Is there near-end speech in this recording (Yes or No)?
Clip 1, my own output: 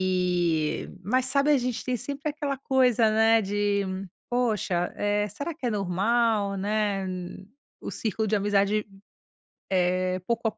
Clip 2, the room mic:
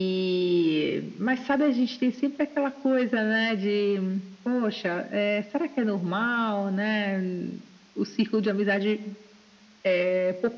No